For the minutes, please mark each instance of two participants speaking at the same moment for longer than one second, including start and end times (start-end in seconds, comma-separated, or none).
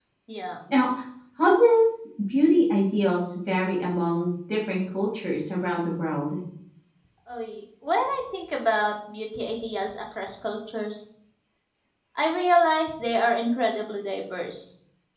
none